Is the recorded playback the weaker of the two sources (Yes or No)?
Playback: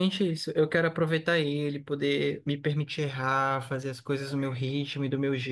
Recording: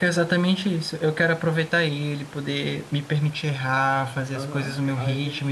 No